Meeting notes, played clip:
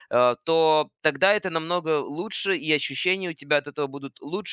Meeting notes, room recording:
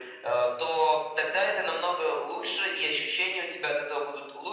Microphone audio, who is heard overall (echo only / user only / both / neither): echo only